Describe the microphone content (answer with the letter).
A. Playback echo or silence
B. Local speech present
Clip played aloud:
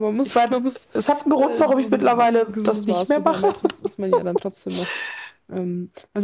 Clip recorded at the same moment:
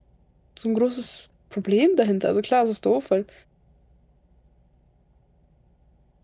B